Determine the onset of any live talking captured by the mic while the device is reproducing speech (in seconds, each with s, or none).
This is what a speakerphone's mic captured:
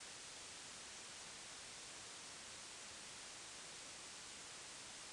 none